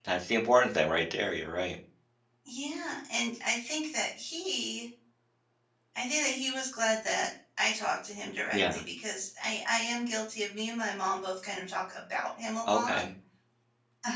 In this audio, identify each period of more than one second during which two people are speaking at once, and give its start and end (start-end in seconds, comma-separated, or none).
none